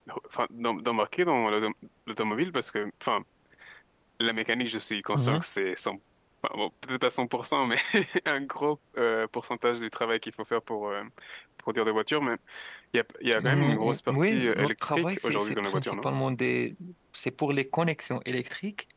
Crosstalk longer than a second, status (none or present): present